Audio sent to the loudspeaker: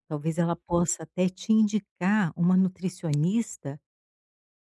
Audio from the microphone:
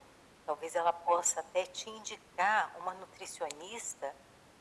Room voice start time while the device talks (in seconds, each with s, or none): none